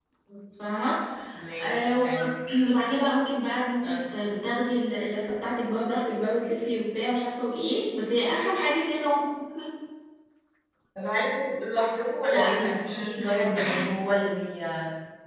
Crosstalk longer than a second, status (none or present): present